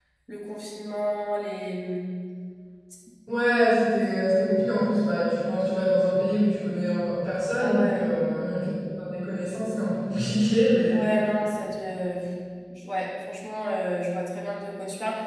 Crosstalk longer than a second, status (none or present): none